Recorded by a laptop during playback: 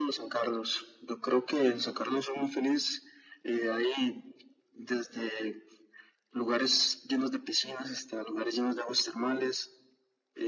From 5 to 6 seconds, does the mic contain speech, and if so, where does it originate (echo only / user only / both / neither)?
echo only